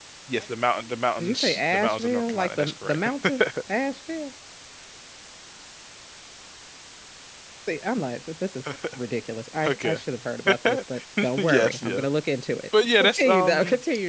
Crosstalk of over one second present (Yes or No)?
Yes